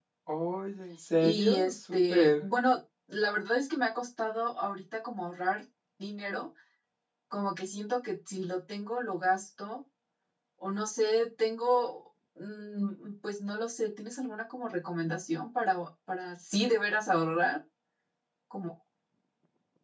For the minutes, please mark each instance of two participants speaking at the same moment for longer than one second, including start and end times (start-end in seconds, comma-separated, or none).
1.2-2.4